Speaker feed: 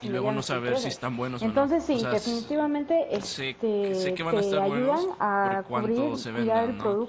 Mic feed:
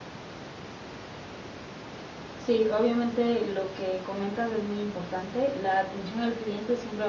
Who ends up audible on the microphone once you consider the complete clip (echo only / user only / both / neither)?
user only